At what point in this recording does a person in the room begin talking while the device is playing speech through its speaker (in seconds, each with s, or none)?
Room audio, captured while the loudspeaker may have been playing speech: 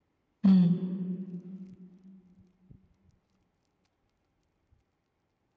0.4 s